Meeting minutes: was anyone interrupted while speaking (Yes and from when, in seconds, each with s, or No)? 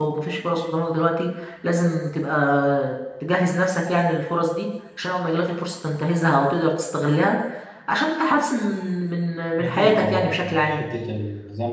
Yes, from 9.6 s